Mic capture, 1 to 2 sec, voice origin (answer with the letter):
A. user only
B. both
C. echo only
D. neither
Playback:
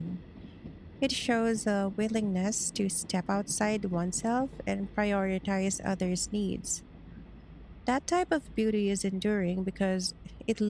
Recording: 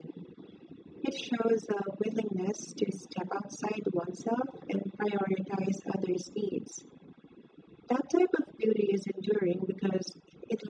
C